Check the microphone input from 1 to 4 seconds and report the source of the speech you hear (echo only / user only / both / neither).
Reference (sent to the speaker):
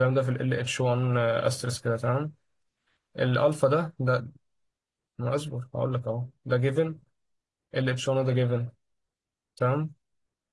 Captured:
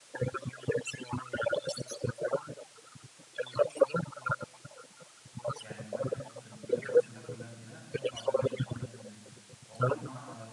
echo only